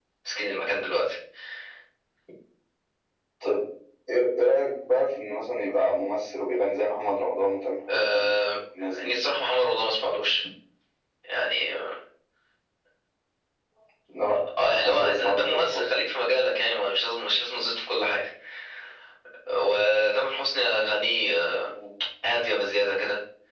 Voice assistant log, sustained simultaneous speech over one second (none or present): present